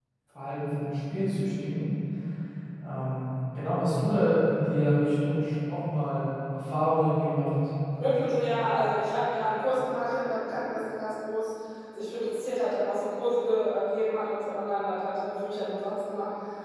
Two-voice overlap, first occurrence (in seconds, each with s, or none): none